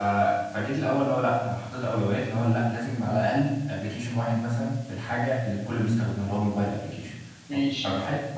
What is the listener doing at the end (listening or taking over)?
listening